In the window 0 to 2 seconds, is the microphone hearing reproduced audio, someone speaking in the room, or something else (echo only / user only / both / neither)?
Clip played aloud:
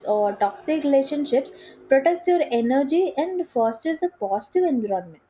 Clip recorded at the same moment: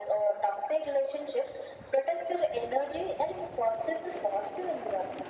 echo only